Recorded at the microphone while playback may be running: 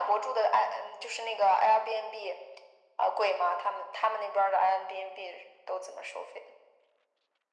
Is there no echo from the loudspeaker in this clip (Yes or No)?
No